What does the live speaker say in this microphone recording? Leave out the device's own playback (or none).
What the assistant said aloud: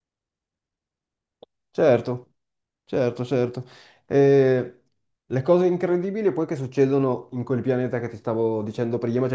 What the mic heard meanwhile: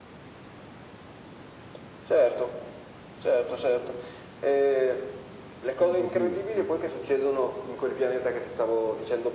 Telepatia, telepa-